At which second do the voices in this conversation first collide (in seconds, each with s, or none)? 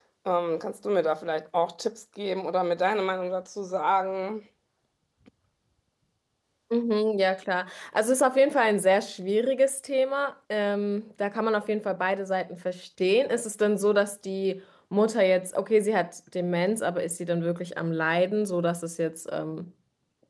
none